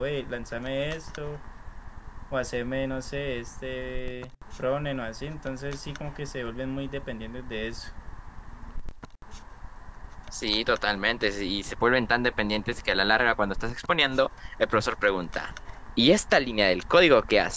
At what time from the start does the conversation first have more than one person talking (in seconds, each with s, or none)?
none